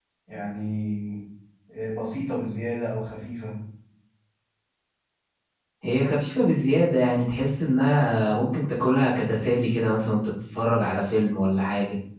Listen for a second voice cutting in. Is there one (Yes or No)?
No